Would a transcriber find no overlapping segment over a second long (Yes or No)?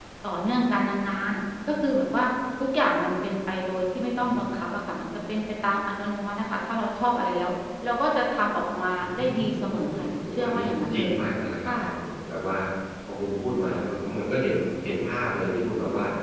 No